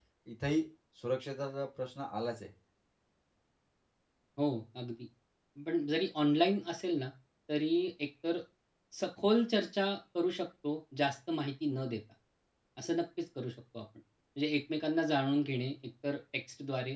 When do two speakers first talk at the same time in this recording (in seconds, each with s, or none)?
none